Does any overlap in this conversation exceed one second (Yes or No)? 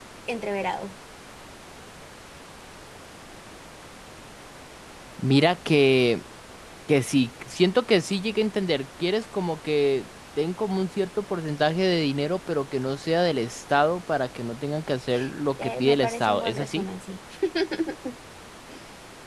Yes